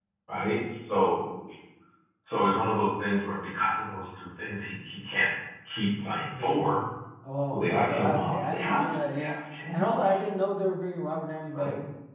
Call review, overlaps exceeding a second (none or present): present